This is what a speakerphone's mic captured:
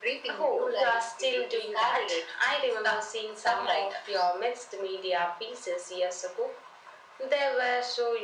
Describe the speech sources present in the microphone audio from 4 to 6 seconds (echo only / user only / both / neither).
echo only